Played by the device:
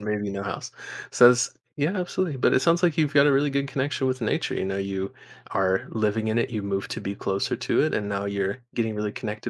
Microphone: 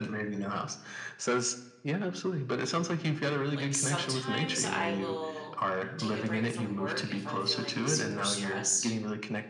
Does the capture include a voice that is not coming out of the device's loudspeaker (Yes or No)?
Yes